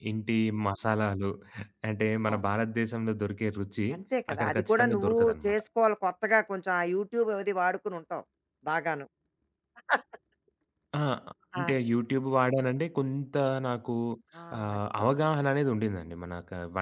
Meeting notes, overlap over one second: present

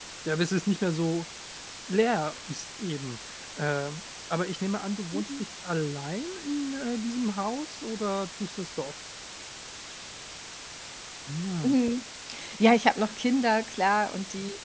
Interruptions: none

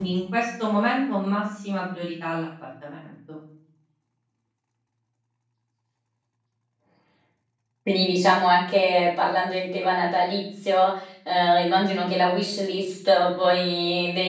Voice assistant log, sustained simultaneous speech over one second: none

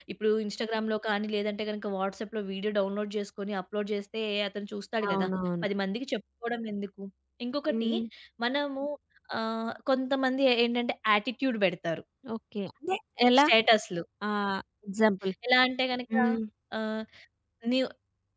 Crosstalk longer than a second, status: none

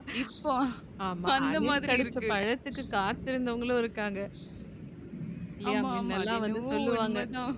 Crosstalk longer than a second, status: present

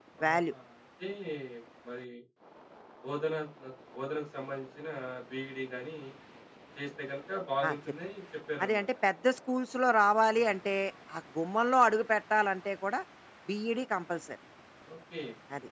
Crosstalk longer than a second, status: none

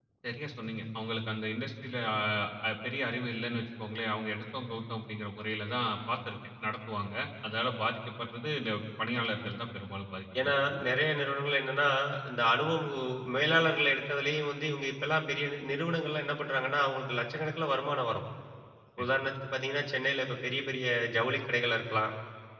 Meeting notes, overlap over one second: none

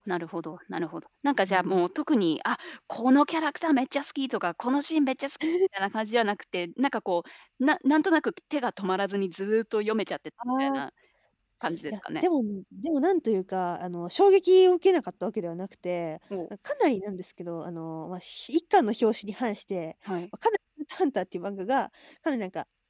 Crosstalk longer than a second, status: none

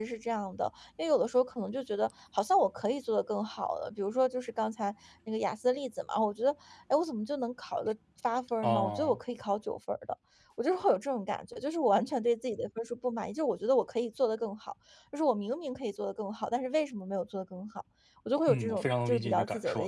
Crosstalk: present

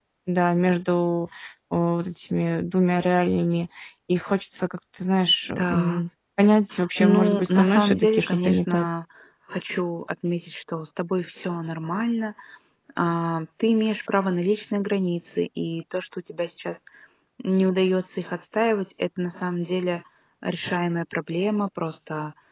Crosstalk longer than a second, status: present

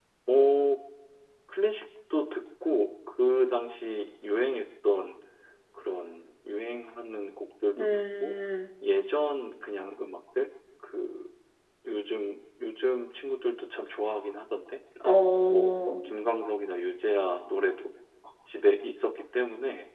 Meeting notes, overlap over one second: none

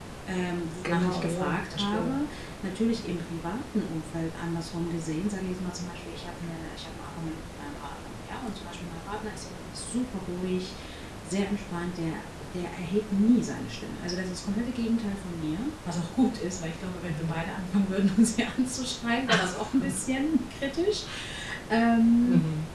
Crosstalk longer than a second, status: present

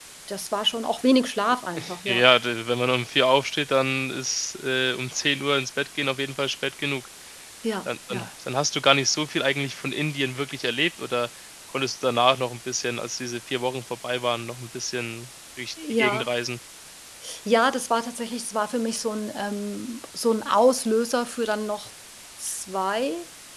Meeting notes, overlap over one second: none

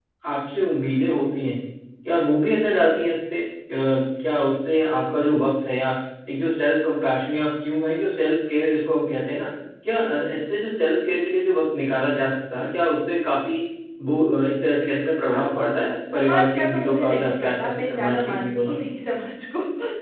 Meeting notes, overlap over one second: present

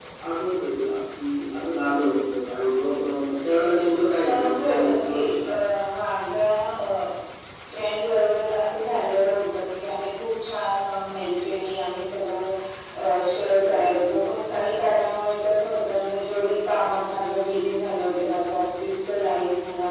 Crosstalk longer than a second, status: present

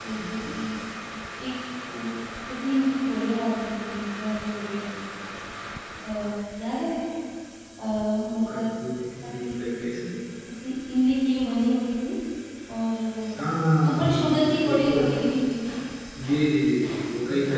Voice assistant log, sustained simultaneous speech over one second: present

